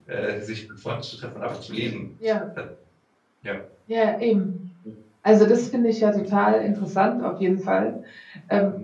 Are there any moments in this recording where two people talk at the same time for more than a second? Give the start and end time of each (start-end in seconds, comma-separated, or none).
none